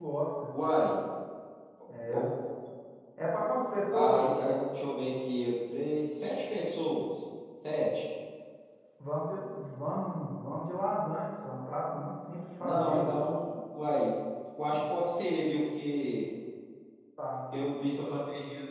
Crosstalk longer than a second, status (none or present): none